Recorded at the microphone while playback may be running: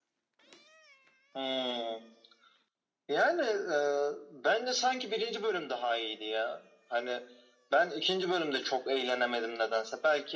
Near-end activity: none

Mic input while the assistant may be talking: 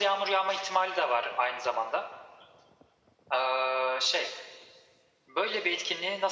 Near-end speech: none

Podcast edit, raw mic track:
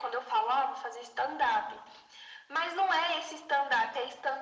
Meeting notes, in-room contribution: none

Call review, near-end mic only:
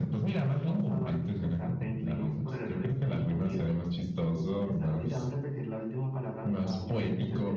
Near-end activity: none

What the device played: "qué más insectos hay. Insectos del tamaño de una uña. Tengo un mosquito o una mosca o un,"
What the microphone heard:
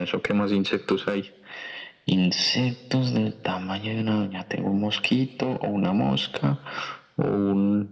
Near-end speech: none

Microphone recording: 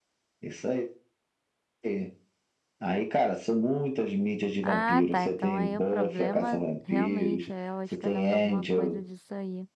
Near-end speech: present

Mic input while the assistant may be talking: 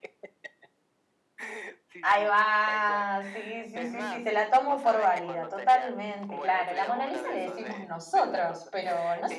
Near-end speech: present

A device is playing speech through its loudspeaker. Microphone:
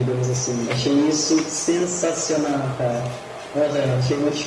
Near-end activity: none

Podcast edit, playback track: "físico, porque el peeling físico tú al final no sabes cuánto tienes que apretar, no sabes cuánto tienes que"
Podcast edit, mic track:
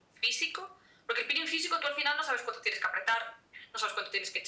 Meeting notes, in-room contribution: none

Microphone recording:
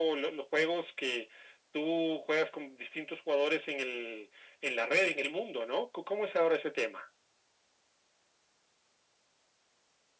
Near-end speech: none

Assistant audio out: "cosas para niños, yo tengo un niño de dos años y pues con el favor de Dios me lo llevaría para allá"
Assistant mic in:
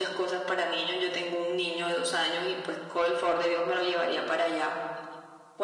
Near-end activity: none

